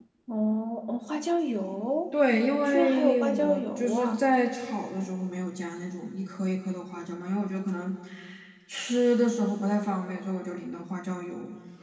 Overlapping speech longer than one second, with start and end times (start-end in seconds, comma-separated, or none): 2.7-4.2